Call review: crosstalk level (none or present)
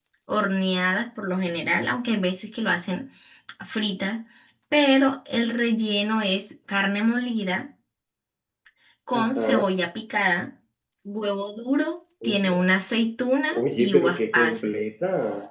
present